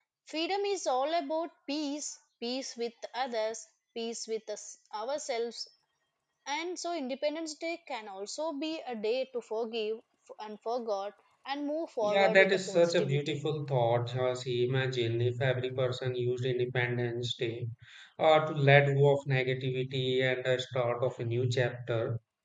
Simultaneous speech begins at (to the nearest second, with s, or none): 12 s